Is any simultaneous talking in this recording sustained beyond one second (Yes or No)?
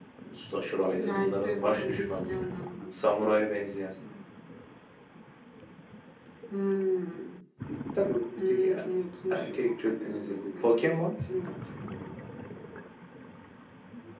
Yes